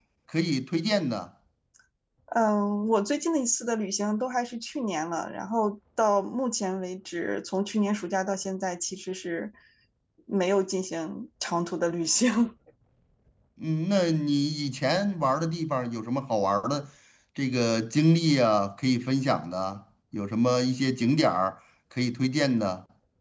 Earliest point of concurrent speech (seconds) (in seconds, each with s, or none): none